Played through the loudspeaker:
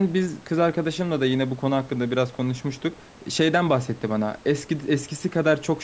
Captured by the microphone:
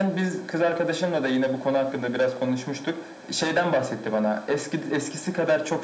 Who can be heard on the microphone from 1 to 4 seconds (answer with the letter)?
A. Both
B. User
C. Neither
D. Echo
D